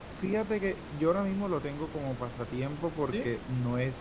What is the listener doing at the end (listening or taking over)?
listening